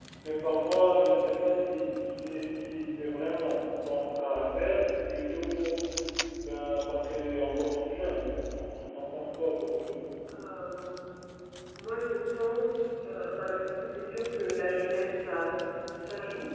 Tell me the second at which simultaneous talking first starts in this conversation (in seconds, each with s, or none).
none